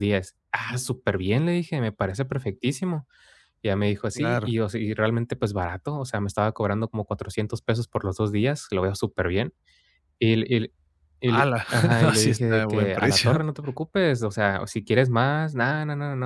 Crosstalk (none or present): present